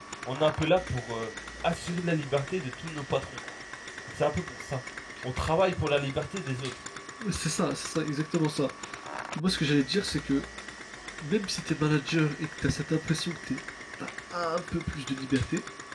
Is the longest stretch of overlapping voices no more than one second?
Yes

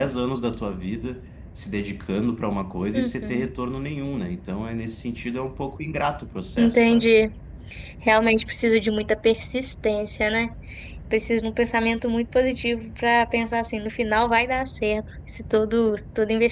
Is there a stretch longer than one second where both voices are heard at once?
No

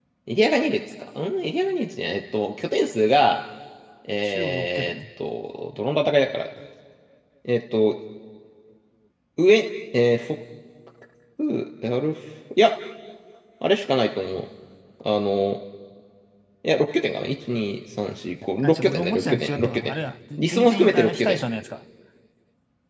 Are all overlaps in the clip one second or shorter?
No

